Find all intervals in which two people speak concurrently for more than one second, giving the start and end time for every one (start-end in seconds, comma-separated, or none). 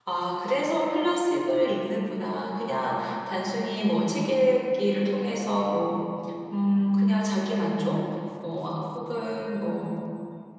none